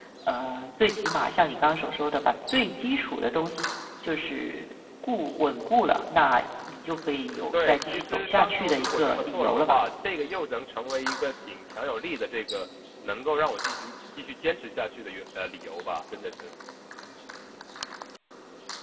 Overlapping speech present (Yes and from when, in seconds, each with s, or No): Yes, from 7.5 s